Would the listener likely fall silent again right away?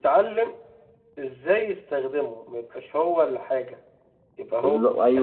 No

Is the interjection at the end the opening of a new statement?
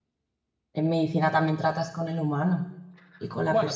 Yes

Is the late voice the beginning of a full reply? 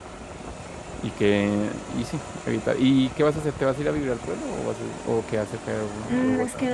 Yes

